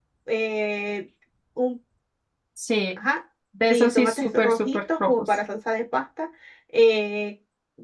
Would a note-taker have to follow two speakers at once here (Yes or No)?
Yes